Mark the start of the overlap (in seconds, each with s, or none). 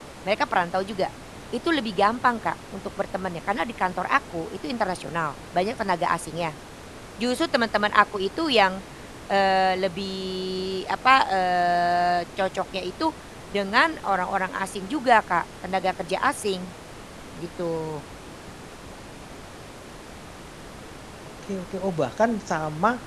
none